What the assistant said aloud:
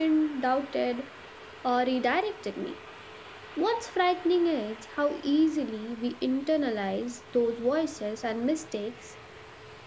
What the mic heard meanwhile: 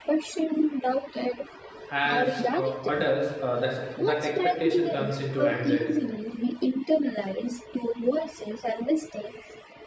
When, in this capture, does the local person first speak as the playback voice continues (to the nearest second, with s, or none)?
2 s